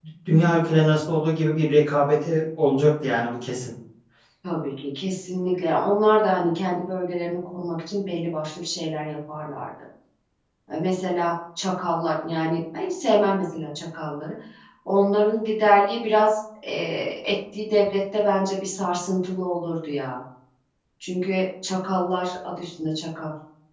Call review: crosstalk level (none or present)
none